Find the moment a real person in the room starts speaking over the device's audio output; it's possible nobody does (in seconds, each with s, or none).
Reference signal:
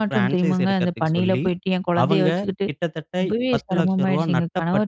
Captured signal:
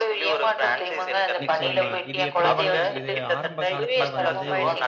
1.4 s